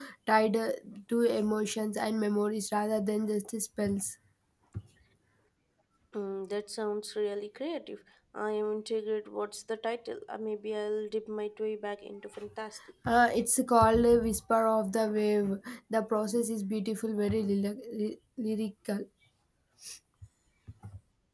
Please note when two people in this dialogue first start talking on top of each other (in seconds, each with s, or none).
none